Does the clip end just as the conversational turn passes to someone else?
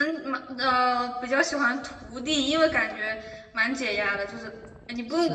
No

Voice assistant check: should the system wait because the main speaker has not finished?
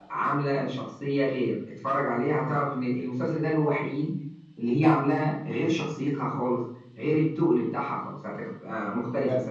No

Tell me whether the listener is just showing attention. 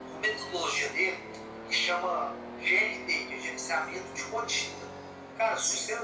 Yes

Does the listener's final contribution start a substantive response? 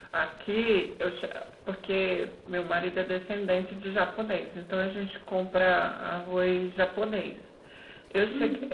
No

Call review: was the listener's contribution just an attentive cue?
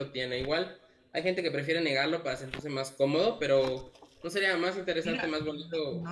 No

